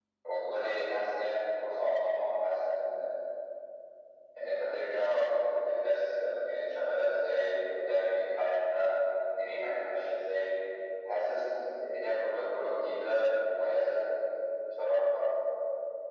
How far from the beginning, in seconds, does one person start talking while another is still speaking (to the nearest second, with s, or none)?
none